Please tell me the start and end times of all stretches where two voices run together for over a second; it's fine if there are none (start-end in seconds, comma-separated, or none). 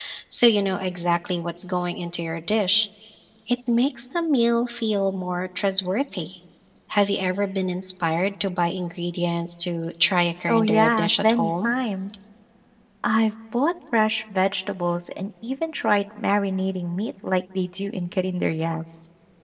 10.5-11.7